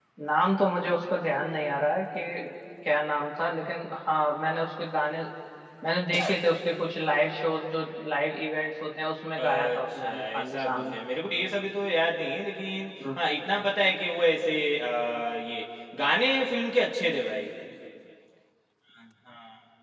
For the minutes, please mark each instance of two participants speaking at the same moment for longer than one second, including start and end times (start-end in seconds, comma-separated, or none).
9.4-10.9